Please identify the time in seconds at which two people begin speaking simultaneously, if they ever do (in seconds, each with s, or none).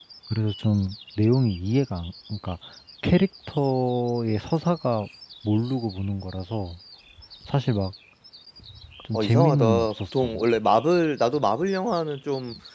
9.1 s